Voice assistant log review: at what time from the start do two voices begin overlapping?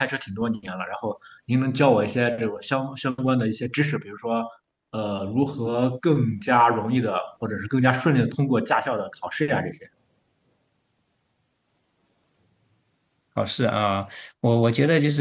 none

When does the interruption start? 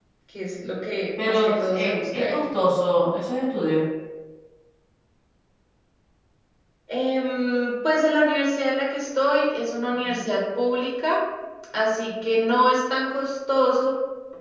1.2 s

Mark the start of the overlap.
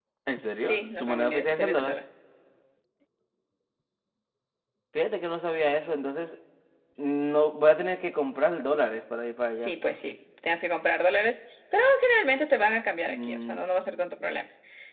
0.7 s

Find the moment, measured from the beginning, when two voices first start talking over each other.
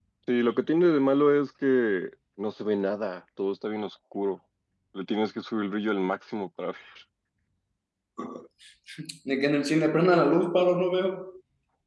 none

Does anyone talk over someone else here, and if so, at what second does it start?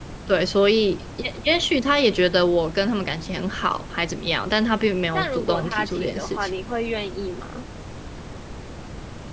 5.1 s

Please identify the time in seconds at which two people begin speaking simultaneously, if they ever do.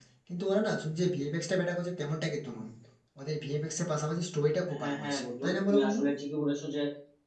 4.7 s

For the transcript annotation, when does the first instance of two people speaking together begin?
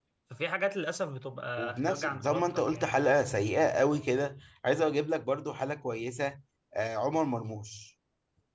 1.6 s

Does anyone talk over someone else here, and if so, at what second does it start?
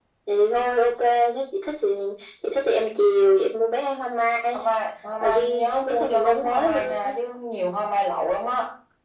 5.2 s

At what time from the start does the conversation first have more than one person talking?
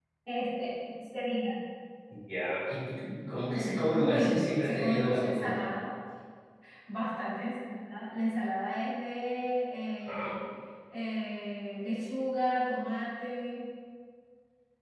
3.9 s

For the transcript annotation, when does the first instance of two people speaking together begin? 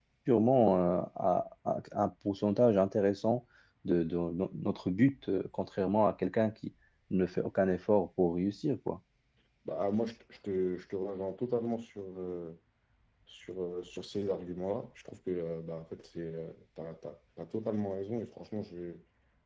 none

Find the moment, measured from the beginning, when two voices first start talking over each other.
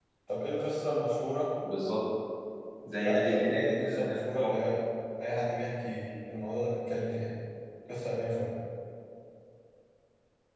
3.0 s

